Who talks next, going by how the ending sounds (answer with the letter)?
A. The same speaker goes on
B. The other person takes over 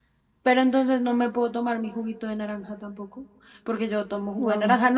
A